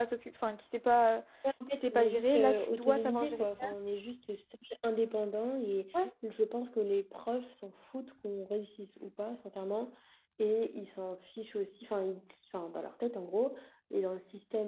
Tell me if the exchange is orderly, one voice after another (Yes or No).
No